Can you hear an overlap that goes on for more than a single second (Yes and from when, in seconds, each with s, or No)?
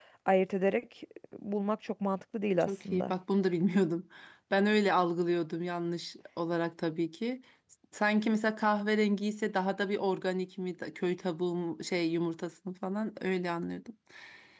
No